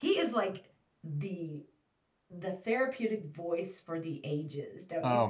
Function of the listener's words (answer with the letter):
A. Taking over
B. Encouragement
A